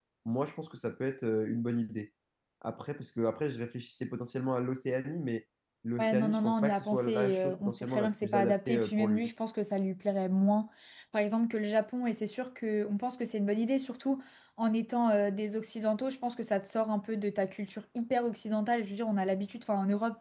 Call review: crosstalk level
present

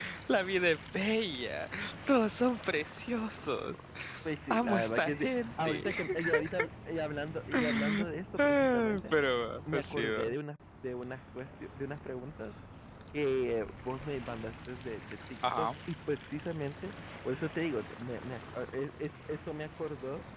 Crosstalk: present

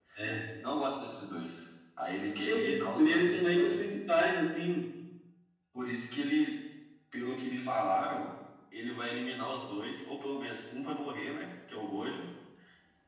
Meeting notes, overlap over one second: present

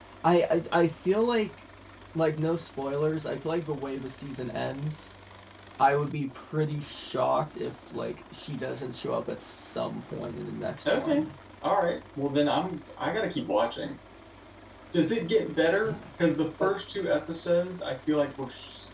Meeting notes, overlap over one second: none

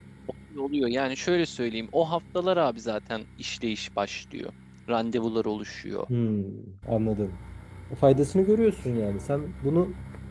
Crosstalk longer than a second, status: none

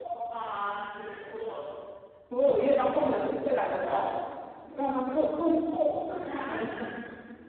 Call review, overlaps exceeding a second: none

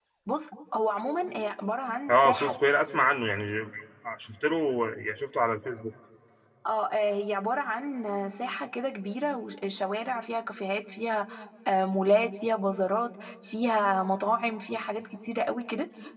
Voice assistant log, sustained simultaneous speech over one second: none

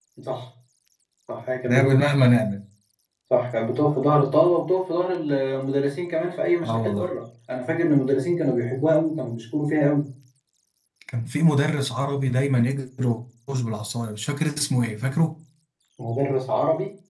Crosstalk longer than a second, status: none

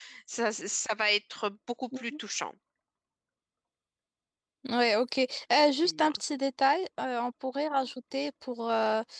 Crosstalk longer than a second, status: none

